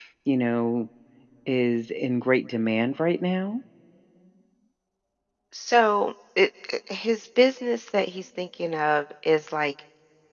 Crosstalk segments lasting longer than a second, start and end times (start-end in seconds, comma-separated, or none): none